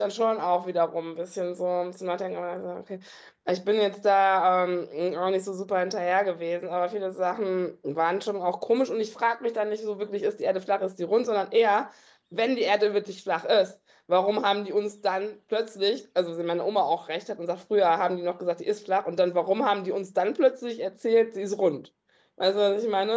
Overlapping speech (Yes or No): No